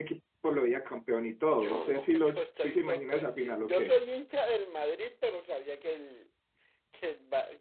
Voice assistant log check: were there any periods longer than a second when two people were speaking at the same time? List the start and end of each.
1.5-3.9

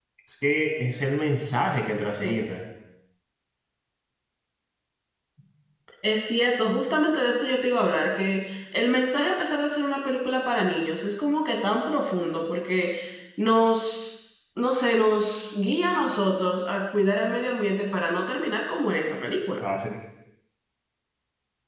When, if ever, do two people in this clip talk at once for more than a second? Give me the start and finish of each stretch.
none

